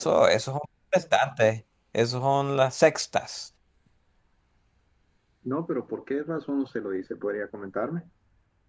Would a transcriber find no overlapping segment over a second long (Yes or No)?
Yes